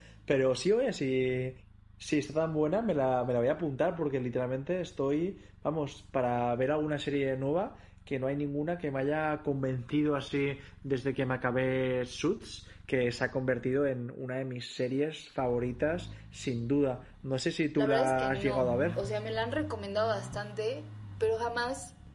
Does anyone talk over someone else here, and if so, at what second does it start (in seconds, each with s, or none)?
17.8 s